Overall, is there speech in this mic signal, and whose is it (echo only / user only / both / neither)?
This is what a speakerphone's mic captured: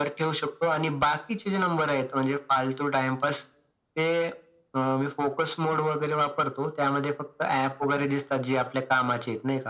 echo only